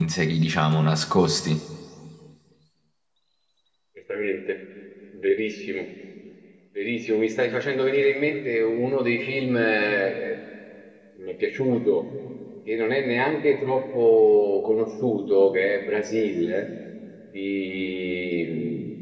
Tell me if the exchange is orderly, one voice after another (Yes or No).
Yes